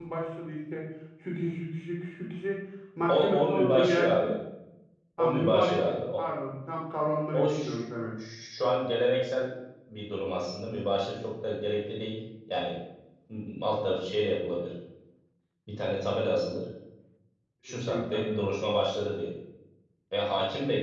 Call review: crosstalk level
present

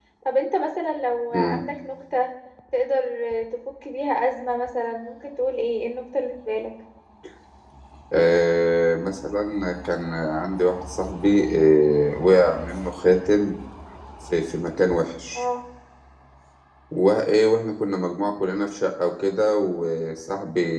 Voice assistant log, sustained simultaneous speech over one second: none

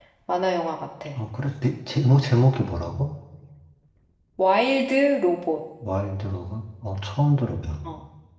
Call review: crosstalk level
none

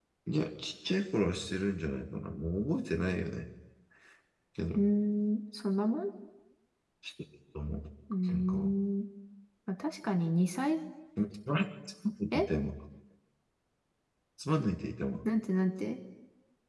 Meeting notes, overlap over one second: none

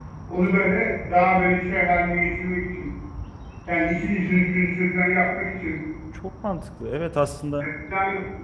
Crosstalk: none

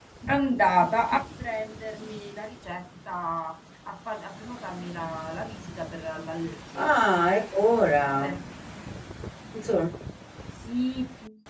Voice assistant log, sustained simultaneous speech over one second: none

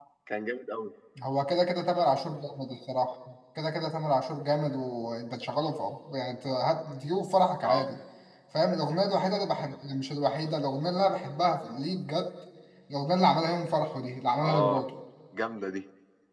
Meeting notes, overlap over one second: none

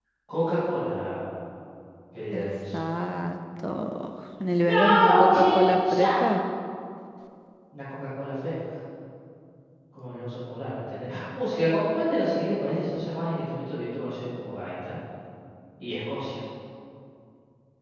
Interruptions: present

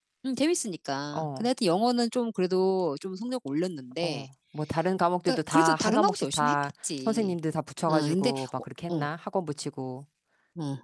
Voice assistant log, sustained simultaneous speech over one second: present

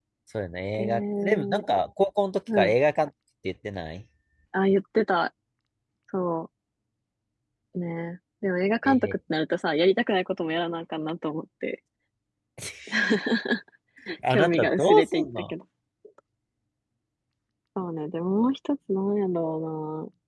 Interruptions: present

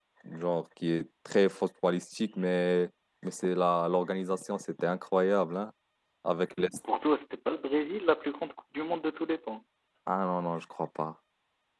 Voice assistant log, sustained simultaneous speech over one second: none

